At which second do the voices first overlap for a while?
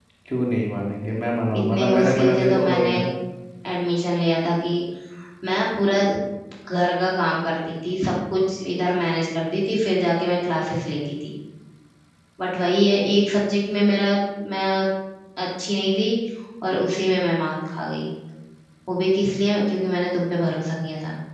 2 s

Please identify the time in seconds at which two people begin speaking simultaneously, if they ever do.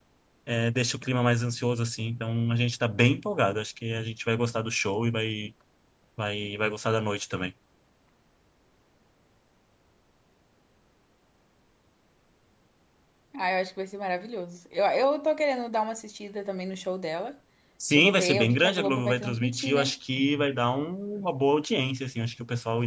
18 s

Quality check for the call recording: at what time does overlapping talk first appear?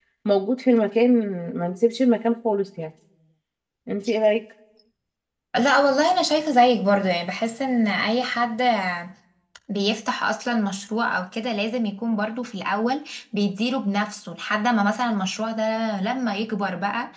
none

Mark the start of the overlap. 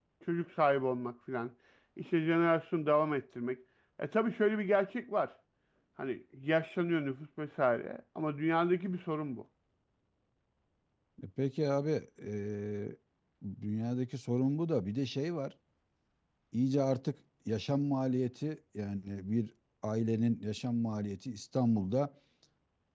none

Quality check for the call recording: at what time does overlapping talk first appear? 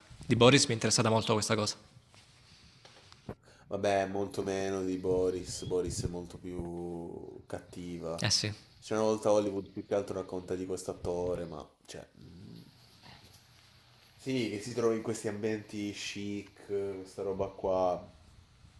none

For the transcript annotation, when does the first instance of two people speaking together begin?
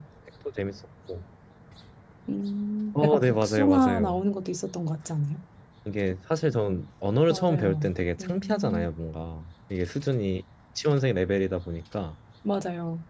3 s

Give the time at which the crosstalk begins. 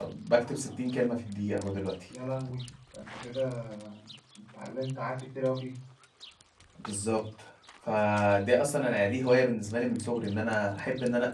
none

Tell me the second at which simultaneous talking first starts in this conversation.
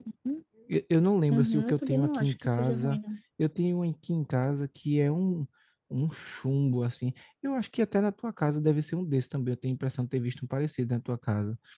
1 s

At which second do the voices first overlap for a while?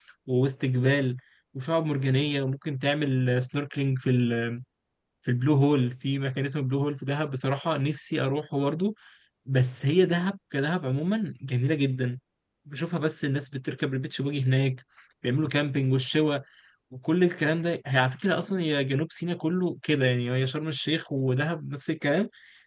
none

